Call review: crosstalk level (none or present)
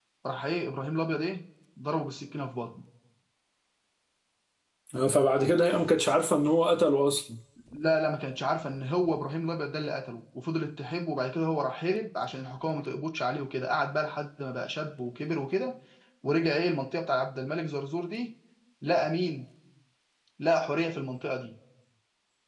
none